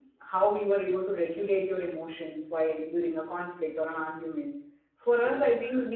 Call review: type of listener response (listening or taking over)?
listening